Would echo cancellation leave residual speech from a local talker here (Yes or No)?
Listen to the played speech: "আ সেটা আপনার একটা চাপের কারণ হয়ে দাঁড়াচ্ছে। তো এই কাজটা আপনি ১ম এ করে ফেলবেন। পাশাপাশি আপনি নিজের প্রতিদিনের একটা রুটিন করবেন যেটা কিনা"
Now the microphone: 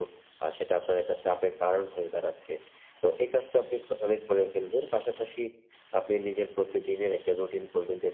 No